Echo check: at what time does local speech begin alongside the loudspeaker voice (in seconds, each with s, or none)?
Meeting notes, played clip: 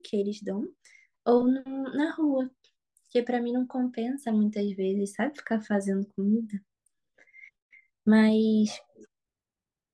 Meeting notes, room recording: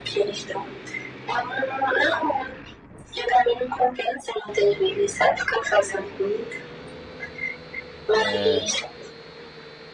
8.1 s